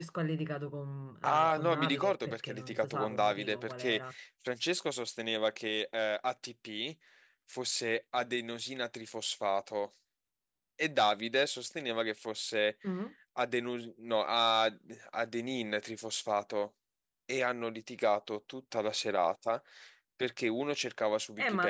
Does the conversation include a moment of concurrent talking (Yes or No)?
Yes